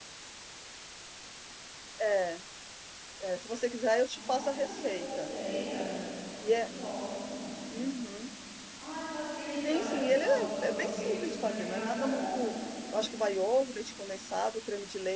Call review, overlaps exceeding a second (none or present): present